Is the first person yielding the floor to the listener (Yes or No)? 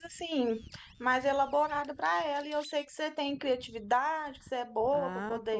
Yes